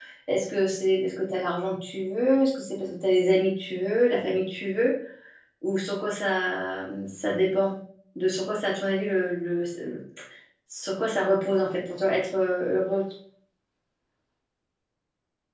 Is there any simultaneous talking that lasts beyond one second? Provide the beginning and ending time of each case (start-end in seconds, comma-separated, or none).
none